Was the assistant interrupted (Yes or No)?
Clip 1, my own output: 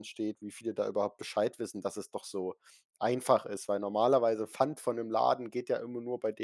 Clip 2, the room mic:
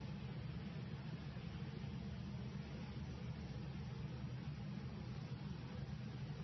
No